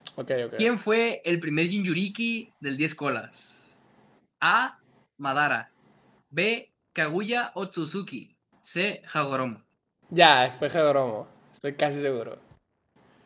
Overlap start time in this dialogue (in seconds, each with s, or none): none